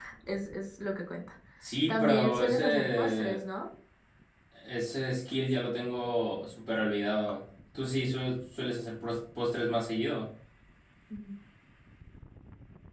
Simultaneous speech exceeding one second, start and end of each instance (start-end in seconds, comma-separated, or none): 1.9-3.4